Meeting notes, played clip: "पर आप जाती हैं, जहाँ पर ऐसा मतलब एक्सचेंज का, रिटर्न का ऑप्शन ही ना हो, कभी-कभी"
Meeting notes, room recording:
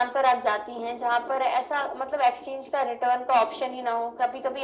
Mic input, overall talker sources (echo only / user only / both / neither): echo only